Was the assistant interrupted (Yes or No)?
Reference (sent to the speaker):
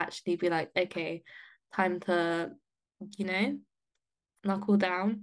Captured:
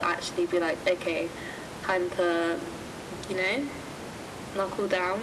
No